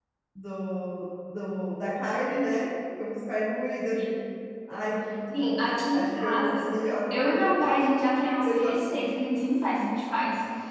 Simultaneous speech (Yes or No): Yes